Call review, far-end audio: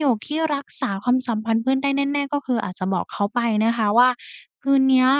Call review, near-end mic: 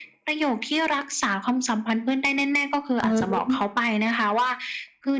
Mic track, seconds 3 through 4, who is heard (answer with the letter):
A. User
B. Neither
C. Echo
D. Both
D